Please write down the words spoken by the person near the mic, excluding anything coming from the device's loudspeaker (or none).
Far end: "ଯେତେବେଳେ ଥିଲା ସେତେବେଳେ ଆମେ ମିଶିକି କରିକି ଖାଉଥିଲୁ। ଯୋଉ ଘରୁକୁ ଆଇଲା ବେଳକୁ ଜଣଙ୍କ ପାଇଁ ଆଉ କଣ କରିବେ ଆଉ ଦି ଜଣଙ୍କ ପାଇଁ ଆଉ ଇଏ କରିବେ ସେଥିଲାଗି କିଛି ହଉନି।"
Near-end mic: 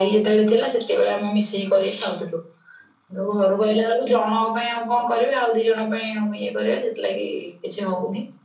none